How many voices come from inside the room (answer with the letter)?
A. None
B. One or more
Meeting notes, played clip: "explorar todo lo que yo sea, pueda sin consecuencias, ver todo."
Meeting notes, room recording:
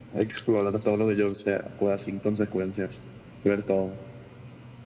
A